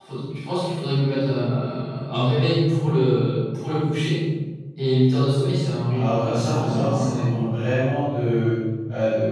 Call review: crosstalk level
present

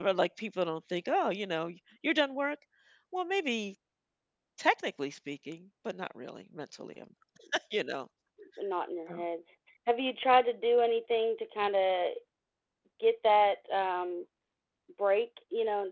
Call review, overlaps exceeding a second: none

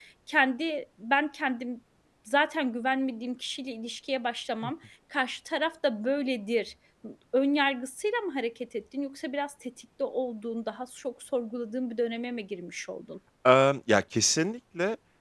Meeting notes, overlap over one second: none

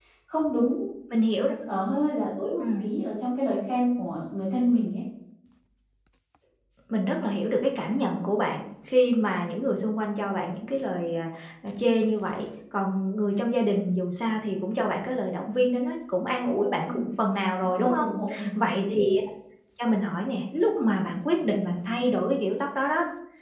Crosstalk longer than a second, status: none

